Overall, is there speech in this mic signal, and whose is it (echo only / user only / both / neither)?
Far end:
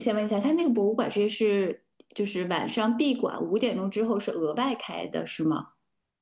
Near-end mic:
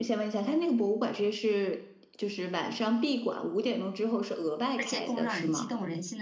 both